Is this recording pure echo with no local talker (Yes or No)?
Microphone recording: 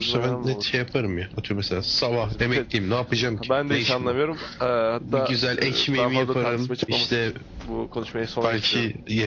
No